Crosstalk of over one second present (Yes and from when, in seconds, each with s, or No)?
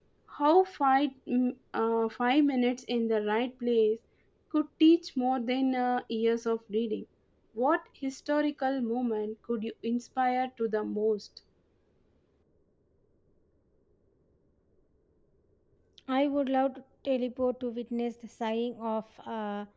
No